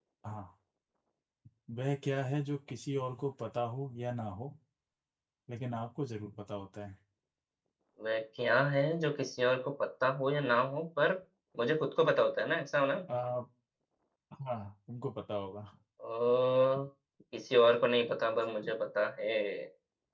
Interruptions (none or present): none